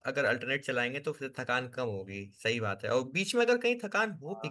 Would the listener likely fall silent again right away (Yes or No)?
Yes